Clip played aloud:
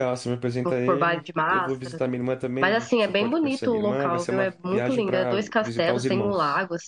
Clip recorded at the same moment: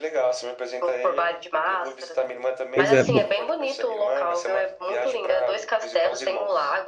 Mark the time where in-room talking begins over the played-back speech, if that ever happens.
3 s

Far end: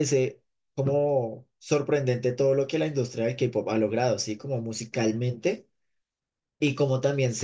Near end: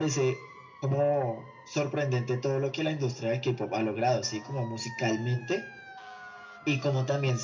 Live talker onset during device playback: none

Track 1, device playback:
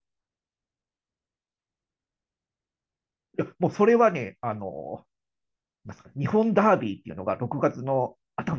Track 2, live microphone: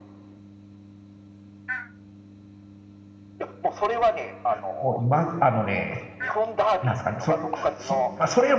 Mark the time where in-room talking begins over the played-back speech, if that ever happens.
5 s

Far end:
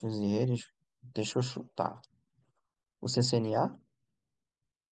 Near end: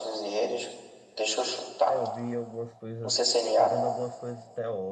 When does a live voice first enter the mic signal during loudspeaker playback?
2 s

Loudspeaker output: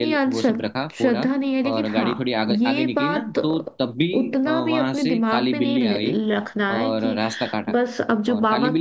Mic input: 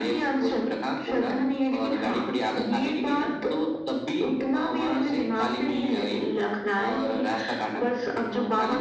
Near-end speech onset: none

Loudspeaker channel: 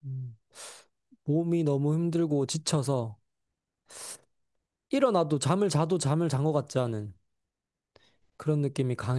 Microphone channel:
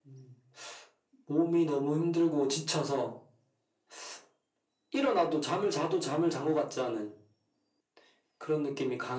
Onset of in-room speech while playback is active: none

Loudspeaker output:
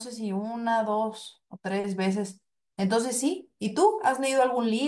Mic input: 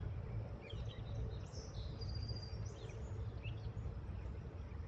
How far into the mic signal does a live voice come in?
none

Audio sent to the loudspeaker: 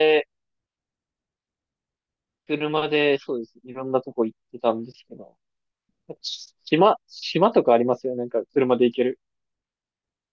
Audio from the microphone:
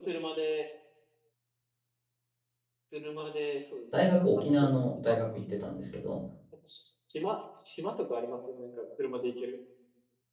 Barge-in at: 4 s

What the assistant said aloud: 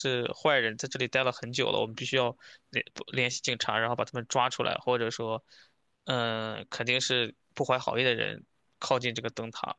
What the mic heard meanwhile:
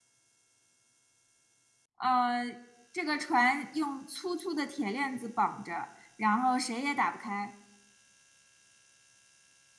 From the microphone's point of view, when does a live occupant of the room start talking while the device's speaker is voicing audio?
2 s

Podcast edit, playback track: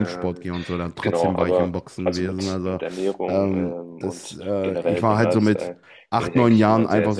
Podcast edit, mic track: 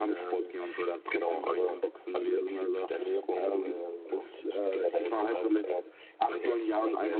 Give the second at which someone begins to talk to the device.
none

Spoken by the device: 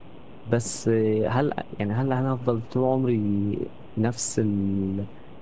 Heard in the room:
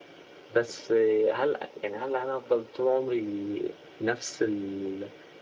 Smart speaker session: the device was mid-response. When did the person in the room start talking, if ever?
none

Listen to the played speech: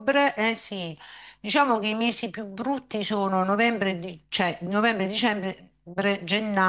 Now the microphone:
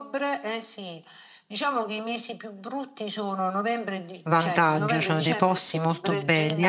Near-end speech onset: 4 s

